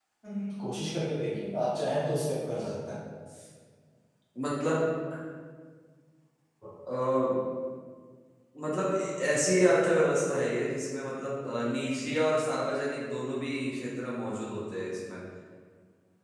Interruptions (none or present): none